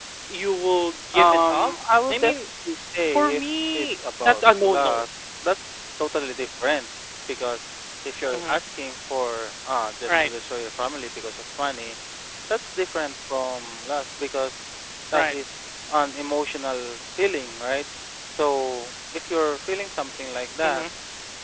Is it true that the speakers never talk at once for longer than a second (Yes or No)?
No